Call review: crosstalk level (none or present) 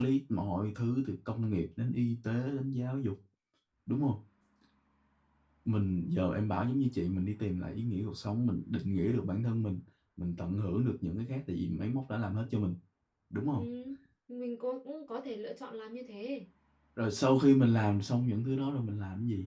none